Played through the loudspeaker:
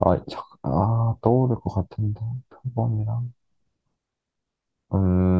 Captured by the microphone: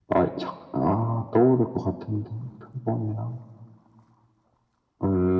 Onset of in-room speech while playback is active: none

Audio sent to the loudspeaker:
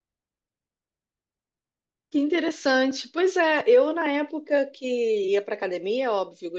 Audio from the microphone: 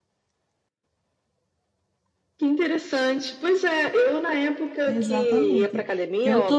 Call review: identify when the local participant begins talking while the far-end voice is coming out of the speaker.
4.9 s

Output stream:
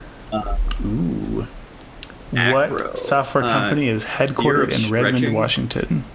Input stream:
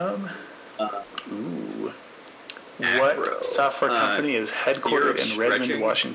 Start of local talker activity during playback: none

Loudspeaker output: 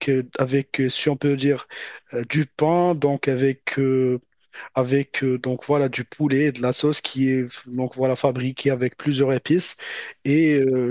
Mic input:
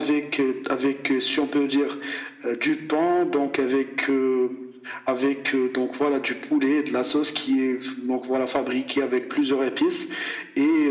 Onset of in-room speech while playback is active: none

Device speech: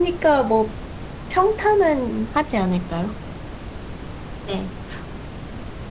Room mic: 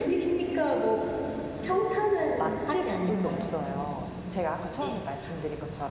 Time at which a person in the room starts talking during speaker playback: 1.6 s

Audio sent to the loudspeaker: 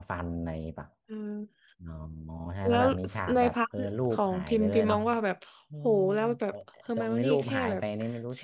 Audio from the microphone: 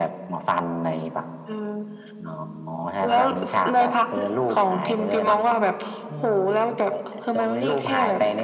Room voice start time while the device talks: none

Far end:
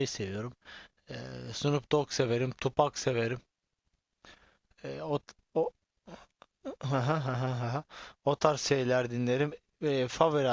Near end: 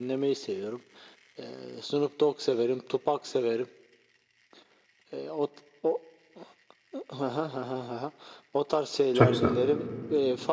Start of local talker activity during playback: 9.1 s

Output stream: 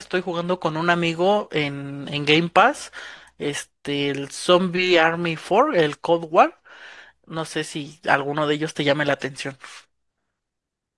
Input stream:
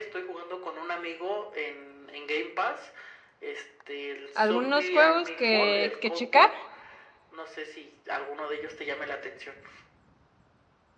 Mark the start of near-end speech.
4.3 s

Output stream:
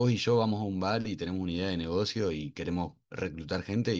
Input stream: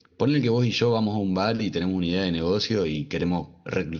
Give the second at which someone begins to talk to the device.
none

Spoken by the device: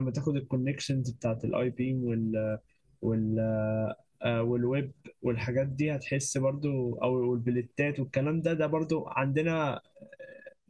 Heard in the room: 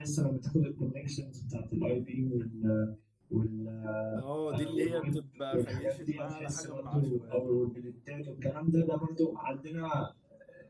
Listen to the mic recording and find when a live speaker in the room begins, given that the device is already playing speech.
4.2 s

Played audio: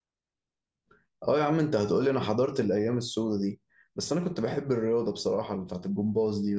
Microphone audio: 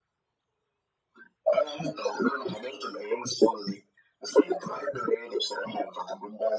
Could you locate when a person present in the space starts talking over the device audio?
none

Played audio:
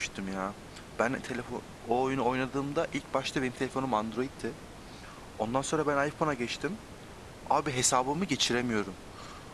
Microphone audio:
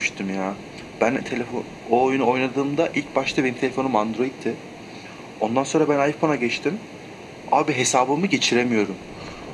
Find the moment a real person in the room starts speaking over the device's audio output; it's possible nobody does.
none

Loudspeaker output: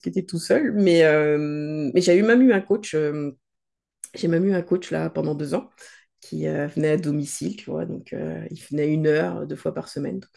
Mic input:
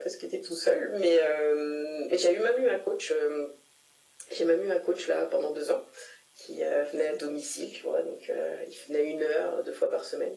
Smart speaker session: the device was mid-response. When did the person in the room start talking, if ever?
none

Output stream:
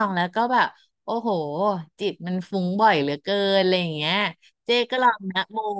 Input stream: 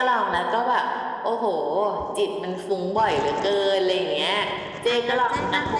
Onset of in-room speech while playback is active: 4.9 s

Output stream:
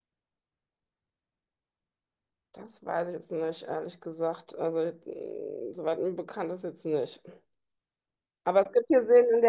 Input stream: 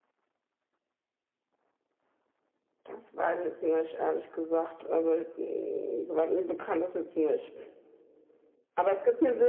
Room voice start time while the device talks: none

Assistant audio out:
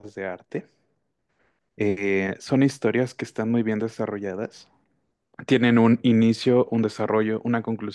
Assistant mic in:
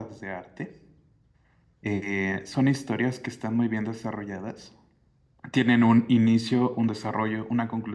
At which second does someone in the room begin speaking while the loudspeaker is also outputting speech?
none

